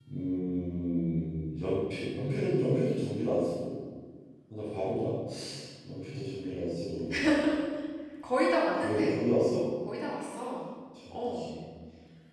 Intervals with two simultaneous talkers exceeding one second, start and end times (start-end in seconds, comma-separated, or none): none